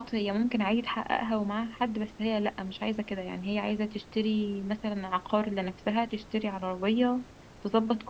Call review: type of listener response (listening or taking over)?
listening